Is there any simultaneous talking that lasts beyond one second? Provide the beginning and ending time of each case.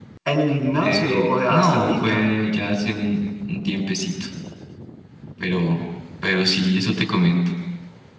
0.8-2.2

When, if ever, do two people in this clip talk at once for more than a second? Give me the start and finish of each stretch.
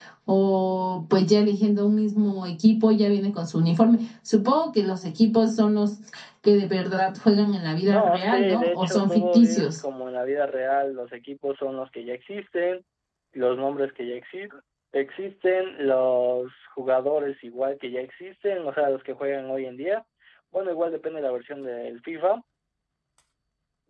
7.9-9.8

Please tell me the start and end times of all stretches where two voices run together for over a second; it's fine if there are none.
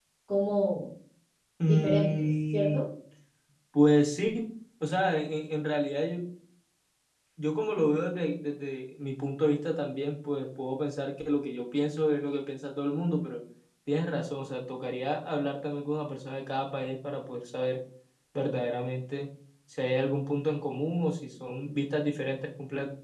1.6-2.9

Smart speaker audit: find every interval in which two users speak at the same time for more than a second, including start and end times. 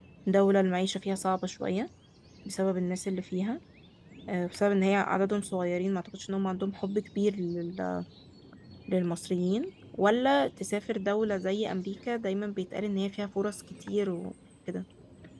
none

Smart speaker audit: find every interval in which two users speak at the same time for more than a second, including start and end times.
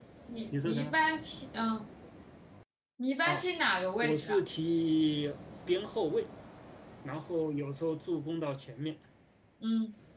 none

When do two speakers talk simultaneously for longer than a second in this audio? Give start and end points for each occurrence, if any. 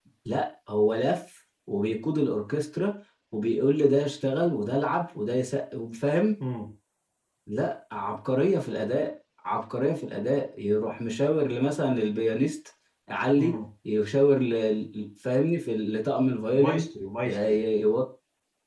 none

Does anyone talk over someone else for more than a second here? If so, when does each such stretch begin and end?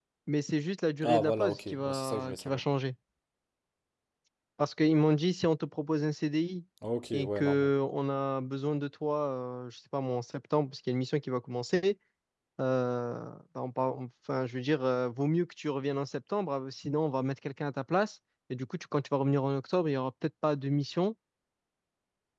1.0-2.6

